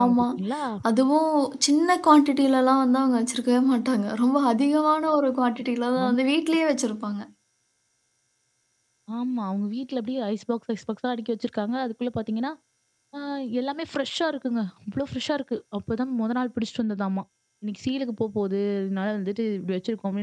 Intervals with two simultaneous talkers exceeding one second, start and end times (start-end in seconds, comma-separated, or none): none